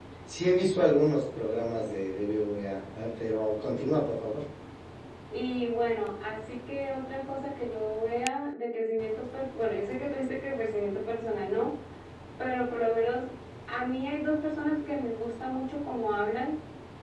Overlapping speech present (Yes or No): No